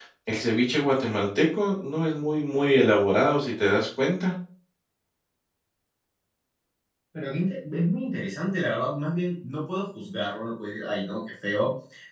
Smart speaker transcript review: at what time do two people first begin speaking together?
none

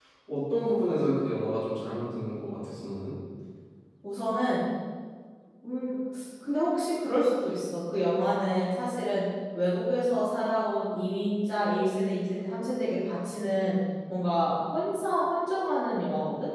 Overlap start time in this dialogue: none

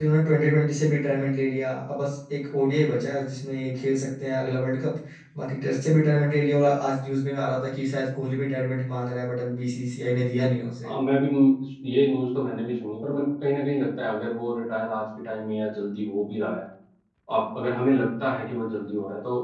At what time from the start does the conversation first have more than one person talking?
none

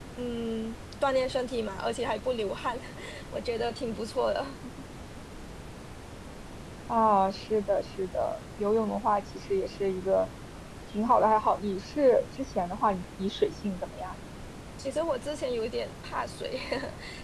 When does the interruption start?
none

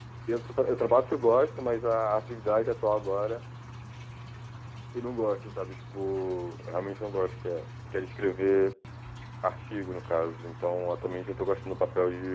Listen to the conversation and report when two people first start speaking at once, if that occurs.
none

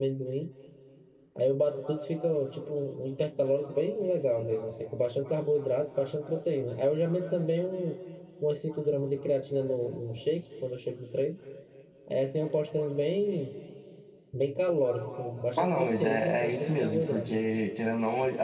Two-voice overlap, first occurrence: 16 s

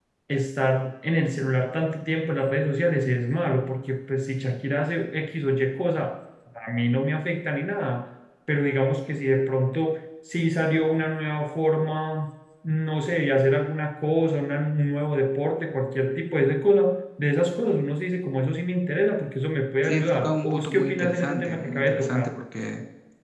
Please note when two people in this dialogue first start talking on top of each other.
20 s

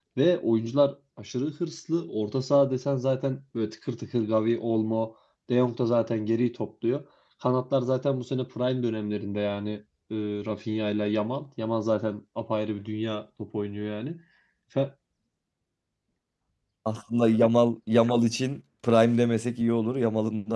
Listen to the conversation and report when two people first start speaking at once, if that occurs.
none

